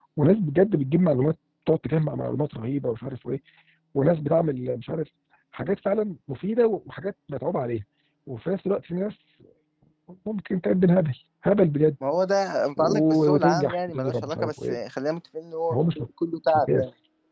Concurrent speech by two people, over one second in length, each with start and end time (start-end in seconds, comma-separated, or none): 12.8-14.7